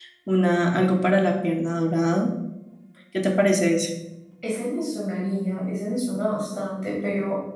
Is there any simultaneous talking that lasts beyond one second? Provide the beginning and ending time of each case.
none

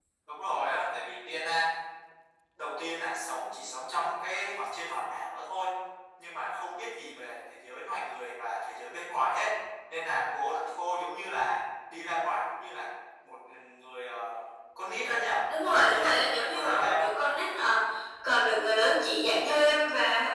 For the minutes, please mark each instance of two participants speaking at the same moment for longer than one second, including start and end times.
15.6-17.1

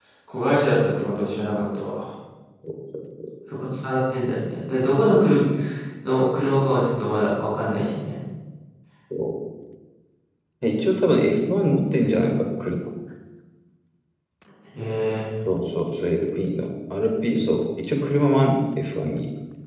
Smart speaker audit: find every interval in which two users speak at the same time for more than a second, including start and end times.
none

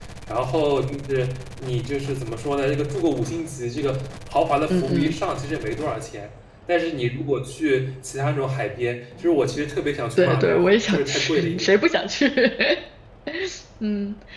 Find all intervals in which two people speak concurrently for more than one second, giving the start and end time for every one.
10.2-11.8

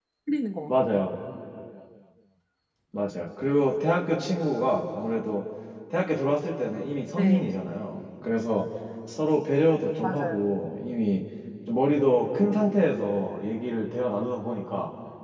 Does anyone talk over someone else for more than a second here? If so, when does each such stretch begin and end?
none

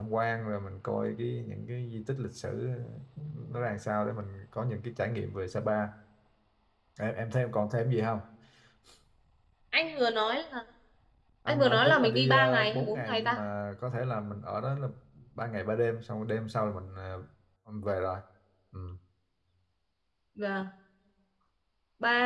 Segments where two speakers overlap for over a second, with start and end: 11.5-13.4

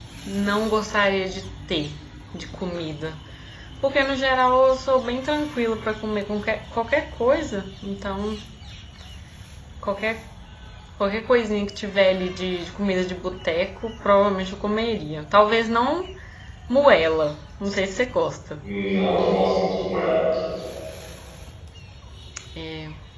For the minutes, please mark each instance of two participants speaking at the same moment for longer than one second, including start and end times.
none

